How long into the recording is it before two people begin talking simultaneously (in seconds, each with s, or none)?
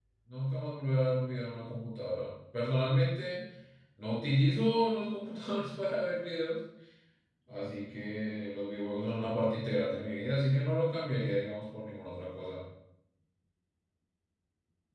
none